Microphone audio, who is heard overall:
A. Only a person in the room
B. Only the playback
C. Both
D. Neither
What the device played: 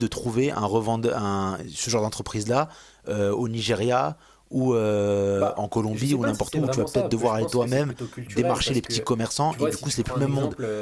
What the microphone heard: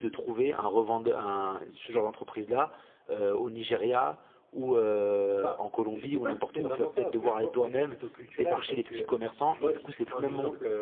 B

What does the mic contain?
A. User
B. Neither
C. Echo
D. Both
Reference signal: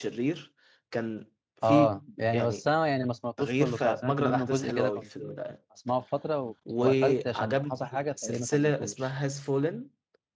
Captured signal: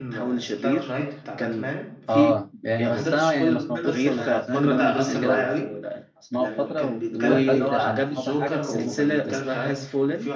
D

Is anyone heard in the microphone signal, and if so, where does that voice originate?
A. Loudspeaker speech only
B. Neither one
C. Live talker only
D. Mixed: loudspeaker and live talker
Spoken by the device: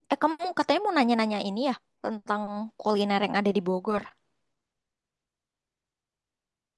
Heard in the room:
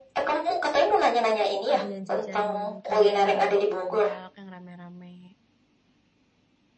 D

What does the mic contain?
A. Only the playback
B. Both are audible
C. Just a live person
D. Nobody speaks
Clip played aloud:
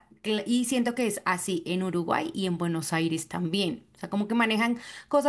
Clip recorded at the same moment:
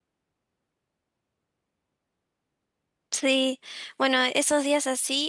C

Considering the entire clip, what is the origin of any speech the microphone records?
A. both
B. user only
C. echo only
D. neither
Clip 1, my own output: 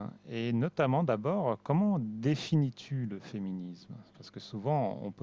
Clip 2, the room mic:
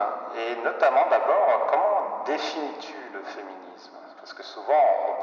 C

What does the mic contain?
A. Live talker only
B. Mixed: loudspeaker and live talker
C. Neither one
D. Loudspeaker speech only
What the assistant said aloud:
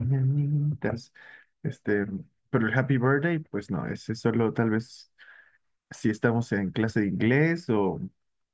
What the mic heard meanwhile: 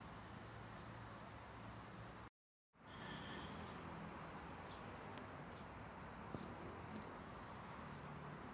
C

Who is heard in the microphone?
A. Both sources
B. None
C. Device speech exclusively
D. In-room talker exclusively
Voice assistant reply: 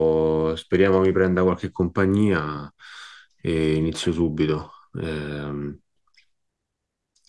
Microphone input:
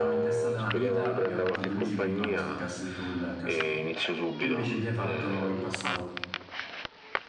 A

